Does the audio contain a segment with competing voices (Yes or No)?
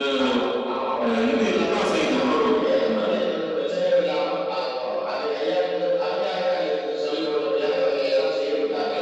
Yes